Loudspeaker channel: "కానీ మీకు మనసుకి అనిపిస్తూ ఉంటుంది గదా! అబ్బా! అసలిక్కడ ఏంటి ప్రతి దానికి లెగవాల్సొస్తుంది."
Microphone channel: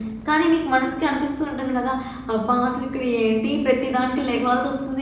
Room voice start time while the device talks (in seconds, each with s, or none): none